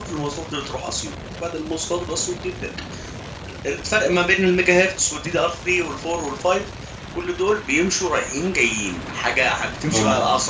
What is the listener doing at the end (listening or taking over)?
listening